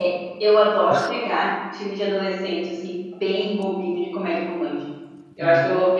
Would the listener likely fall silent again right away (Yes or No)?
Yes